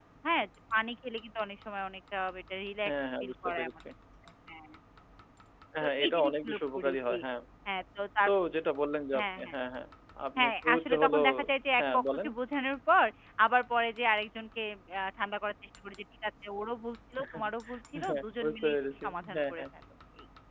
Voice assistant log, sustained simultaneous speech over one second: present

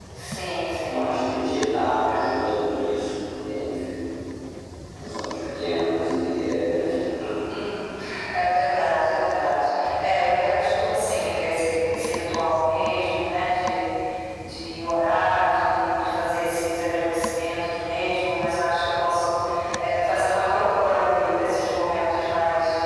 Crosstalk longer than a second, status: none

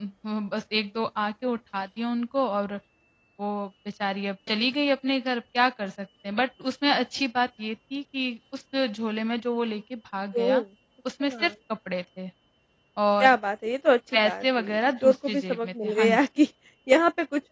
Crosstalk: present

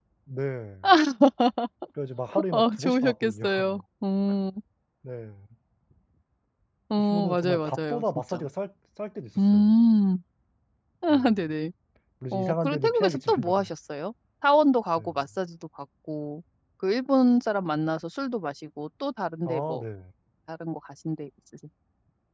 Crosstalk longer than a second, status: present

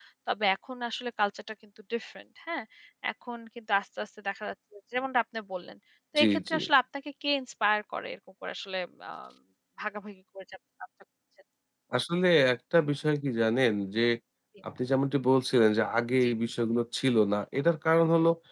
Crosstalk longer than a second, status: none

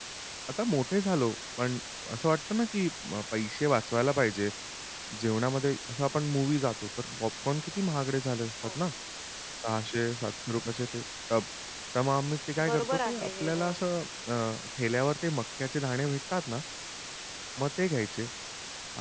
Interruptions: present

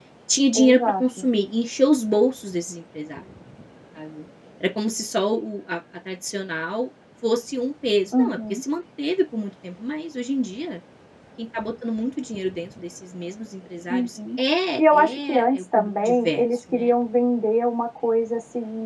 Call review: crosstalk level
present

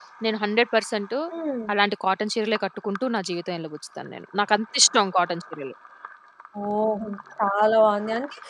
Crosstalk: none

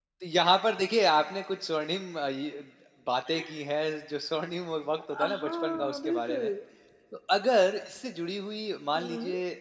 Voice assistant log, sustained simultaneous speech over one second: present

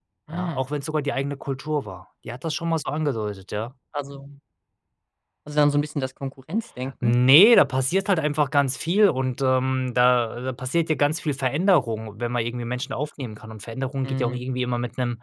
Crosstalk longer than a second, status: none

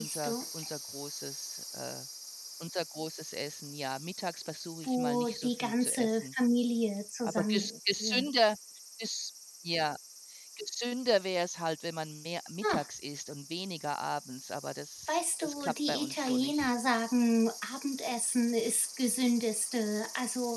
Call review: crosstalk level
present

